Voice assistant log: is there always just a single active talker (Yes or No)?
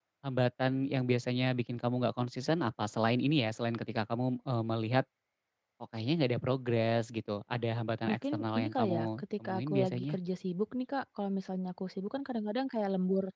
No